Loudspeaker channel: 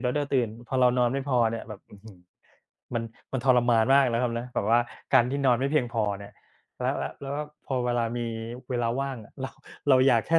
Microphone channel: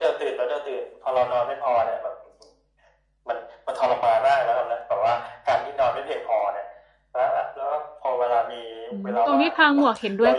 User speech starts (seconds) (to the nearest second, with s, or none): 9 s